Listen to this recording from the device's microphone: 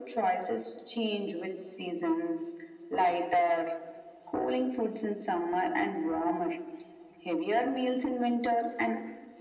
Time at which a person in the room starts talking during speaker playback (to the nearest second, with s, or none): none